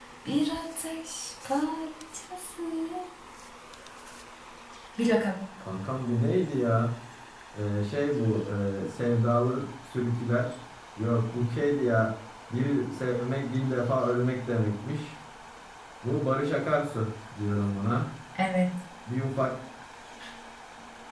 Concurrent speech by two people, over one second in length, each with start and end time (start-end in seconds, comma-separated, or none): none